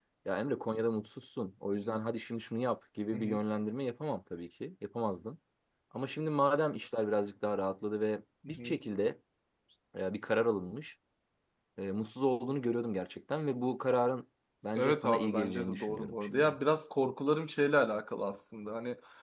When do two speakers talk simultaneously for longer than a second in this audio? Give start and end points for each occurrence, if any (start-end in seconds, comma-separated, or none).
14.8-16.6